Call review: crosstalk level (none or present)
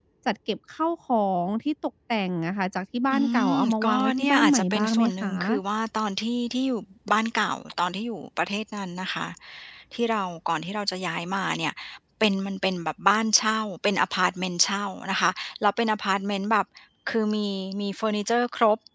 present